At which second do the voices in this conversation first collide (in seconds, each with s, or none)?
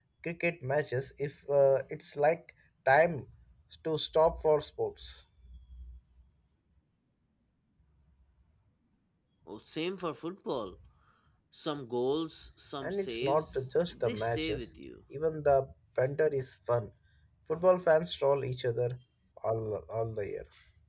12.8 s